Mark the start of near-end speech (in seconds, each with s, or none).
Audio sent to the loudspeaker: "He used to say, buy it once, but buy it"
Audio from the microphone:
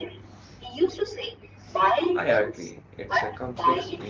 2.2 s